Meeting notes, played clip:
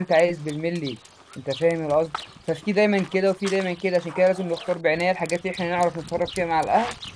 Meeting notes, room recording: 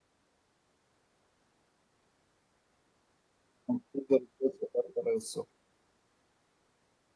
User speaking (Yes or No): Yes